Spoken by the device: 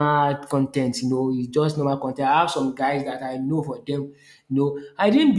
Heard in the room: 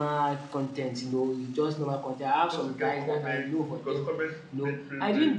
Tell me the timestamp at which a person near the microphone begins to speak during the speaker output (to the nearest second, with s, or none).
2 s